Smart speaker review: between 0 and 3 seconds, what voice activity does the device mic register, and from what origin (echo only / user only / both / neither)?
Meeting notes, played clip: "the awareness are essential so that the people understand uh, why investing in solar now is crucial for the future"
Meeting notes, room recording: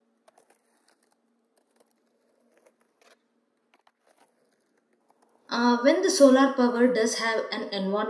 neither